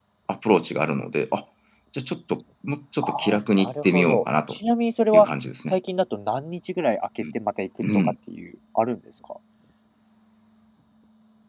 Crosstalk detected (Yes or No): Yes